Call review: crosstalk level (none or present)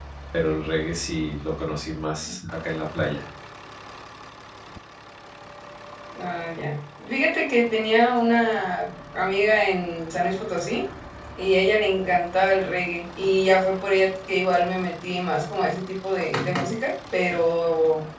none